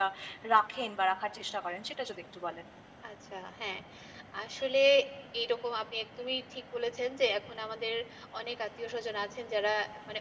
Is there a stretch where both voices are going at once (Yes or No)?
No